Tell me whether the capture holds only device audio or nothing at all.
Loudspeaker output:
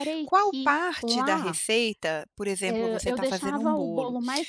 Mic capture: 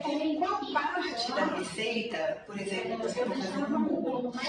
Yes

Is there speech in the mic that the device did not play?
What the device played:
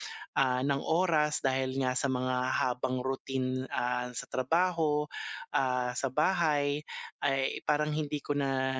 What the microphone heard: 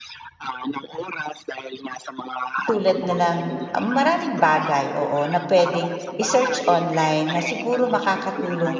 Yes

